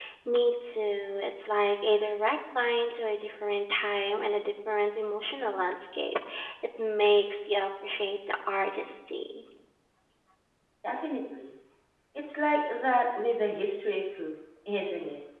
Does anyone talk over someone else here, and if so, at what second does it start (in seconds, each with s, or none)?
none